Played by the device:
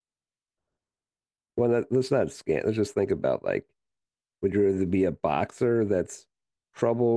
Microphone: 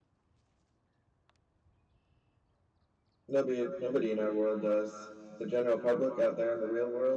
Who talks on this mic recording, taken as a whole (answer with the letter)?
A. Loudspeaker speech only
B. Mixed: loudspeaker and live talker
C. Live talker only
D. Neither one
C